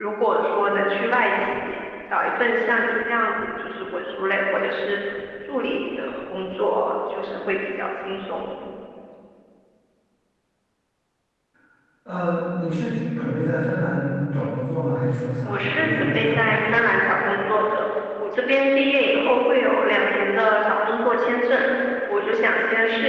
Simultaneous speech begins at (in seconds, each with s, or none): 15.4 s